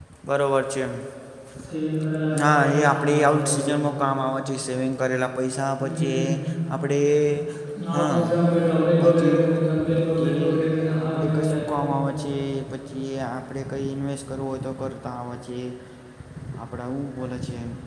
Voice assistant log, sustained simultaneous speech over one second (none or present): present